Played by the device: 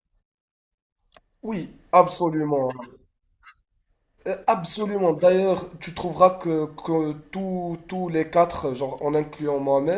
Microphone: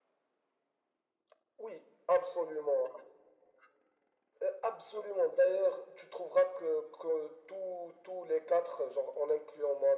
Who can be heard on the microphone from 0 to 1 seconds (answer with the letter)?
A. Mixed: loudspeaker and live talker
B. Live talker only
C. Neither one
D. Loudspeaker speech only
C